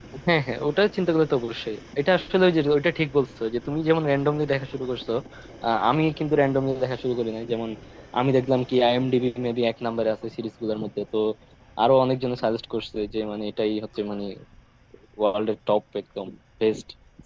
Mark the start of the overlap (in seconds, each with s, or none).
none